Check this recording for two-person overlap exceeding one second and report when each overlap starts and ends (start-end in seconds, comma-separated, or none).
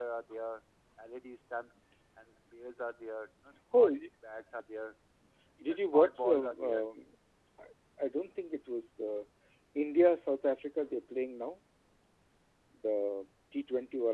5.6-6.8